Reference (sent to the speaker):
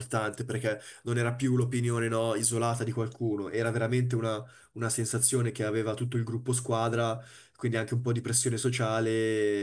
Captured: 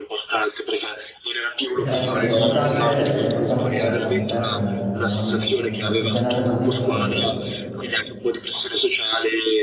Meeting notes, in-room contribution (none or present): present